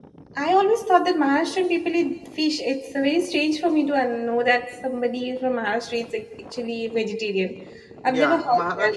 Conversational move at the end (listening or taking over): taking over